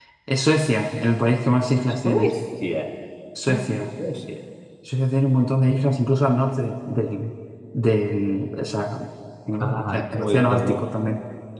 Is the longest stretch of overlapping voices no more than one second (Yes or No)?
No